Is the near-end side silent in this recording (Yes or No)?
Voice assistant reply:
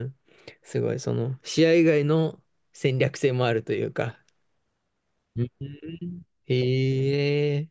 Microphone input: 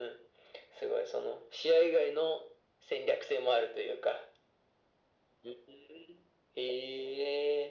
Yes